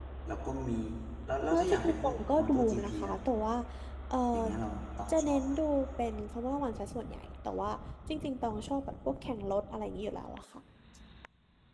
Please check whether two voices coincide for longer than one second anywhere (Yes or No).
Yes